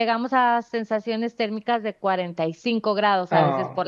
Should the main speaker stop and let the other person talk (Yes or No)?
Yes